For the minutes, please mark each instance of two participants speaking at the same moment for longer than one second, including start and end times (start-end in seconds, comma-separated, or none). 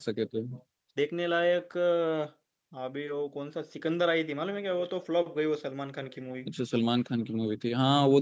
none